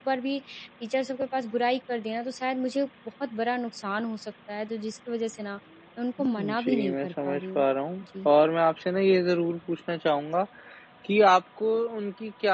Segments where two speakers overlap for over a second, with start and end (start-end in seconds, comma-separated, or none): 6.2-7.7